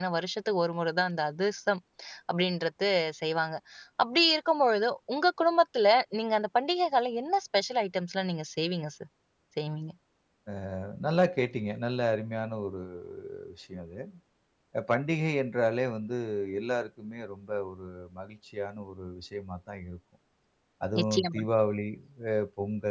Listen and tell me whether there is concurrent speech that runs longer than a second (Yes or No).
No